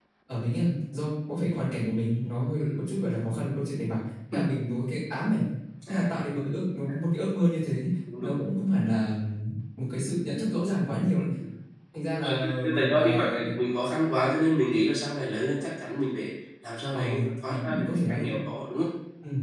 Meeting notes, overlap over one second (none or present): present